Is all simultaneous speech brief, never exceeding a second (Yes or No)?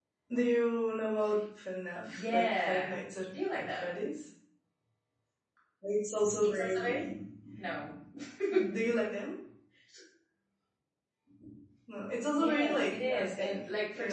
No